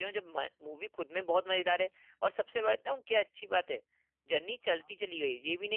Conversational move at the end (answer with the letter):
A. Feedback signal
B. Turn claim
A